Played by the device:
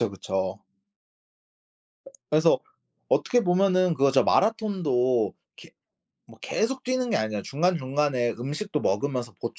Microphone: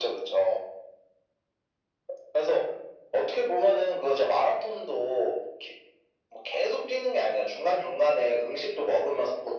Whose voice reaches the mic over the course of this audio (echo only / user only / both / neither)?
echo only